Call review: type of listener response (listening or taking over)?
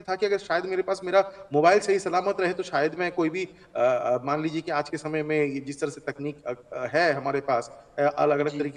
listening